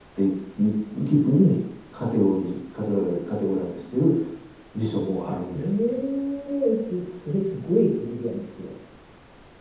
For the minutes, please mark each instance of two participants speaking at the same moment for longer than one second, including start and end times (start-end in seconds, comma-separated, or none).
none